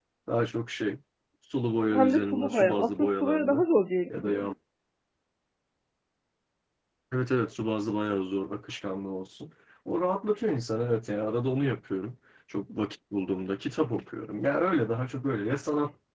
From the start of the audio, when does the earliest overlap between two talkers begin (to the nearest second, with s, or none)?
2 s